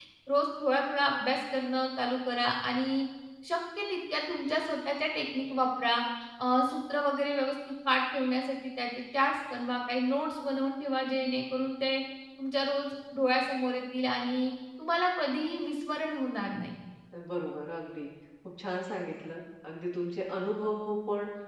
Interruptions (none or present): none